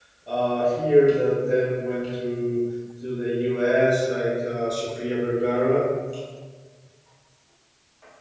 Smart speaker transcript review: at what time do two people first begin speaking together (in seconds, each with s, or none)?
none